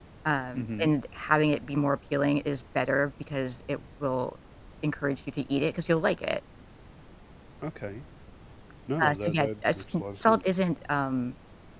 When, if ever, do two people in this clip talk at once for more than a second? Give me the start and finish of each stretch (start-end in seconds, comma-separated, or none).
9.0-10.5